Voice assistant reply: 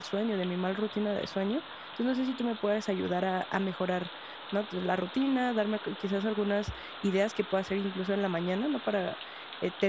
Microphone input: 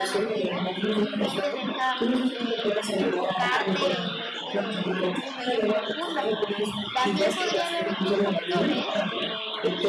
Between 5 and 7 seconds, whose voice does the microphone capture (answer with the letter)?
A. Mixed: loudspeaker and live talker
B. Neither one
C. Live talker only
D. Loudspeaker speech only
A